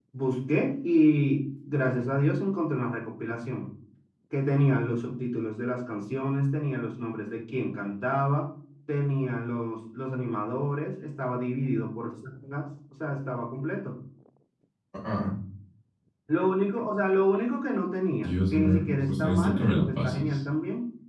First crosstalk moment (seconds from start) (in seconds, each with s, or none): 18.2 s